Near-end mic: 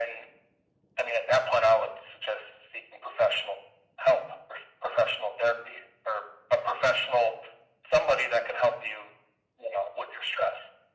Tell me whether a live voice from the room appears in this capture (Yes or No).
No